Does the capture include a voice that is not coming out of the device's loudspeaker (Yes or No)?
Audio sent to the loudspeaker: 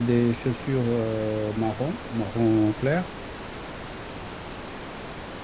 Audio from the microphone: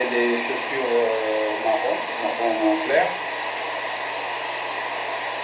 No